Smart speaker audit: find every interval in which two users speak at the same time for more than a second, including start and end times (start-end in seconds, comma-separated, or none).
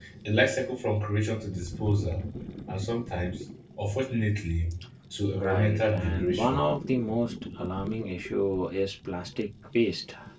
5.4-6.6